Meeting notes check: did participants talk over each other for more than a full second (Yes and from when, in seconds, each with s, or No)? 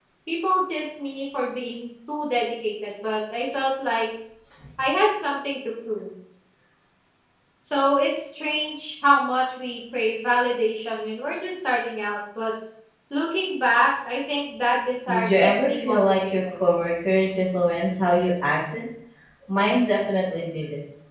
Yes, from 15.1 s